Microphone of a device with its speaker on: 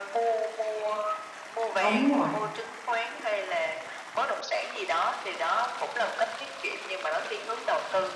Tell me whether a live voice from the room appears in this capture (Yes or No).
Yes